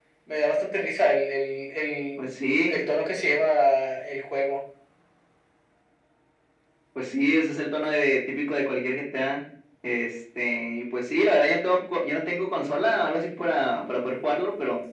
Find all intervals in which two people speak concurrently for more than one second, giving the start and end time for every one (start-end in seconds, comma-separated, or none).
none